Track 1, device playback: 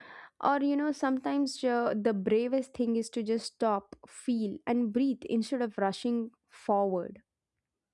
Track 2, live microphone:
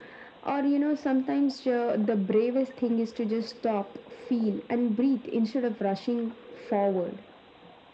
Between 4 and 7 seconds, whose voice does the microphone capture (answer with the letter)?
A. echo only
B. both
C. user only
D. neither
A